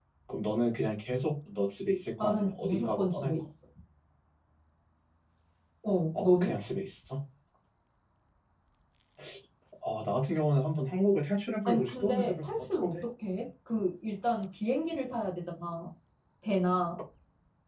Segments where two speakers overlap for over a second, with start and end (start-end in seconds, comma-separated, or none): 2.2-3.4, 11.6-13.0